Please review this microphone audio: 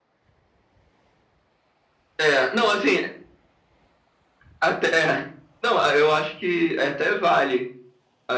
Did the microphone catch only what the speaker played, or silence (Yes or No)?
Yes